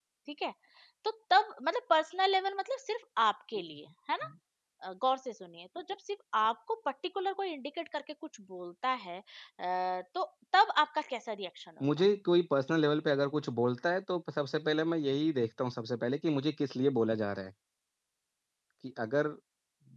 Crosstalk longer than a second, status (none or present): none